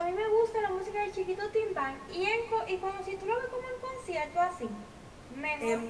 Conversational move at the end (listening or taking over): taking over